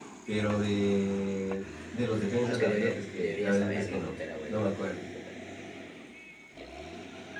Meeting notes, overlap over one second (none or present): present